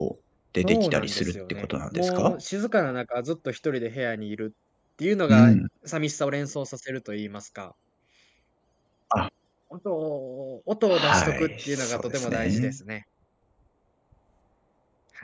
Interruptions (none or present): present